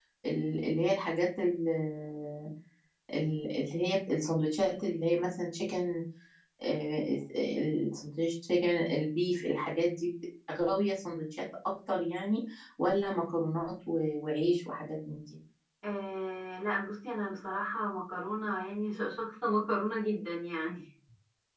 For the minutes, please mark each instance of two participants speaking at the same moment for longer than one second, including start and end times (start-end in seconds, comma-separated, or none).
none